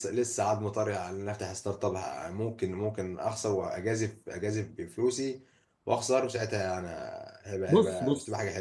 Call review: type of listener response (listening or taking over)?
taking over